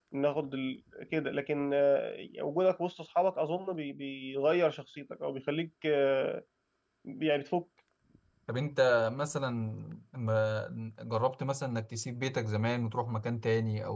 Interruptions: none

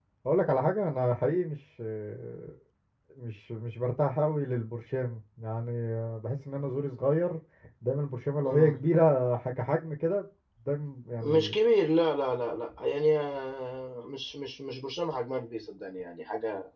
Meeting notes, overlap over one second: none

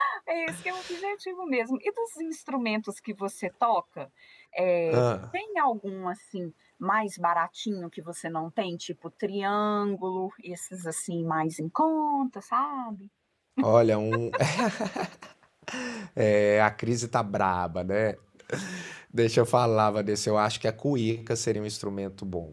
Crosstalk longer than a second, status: none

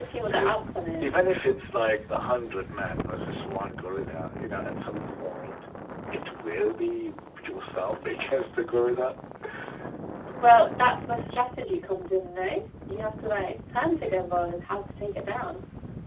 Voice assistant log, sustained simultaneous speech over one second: none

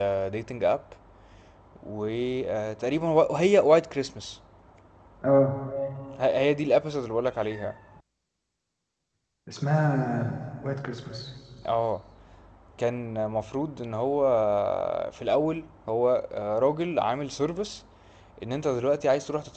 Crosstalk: none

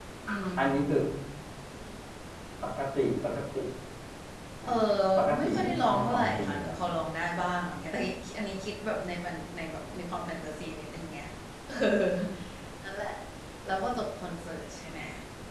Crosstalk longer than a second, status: present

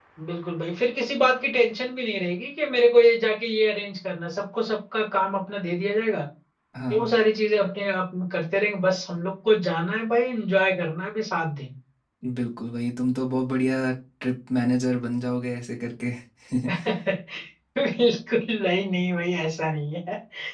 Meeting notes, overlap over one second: none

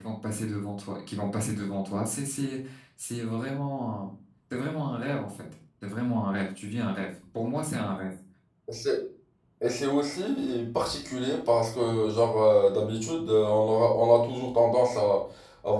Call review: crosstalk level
none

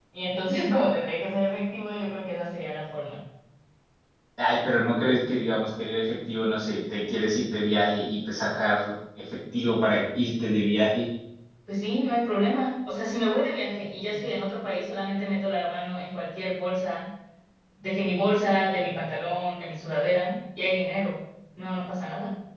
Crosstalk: none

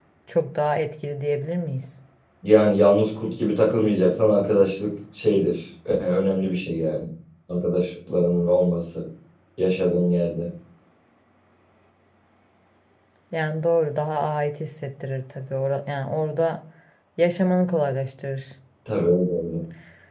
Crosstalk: none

